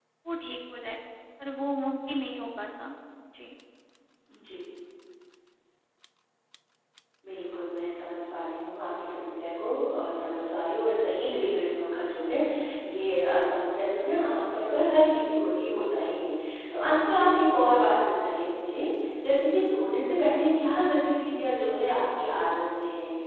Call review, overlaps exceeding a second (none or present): none